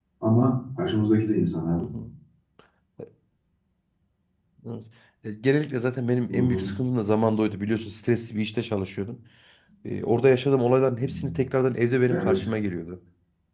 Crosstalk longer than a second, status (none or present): none